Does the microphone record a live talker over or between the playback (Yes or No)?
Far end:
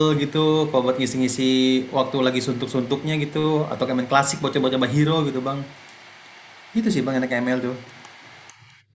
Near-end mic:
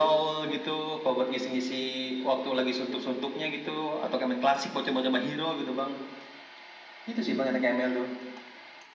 No